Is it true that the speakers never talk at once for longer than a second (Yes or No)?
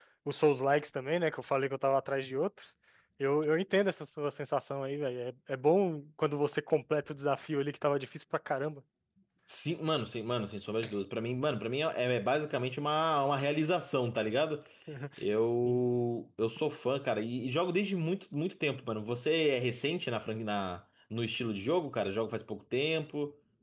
Yes